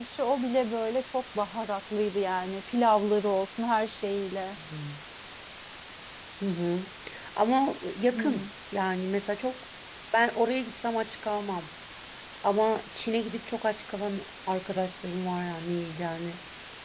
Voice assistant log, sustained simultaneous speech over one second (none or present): none